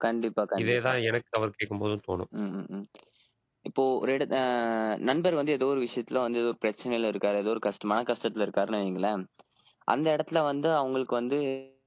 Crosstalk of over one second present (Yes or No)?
No